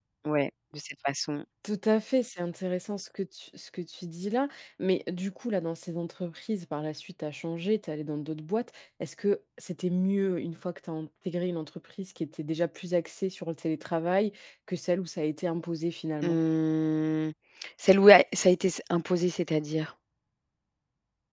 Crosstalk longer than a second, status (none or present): none